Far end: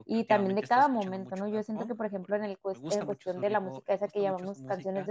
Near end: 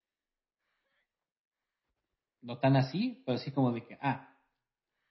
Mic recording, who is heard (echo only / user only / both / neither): user only